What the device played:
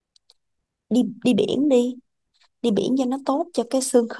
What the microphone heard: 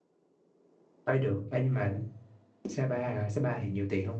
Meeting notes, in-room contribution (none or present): present